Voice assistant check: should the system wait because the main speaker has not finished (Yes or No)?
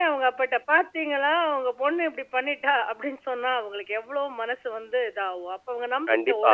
No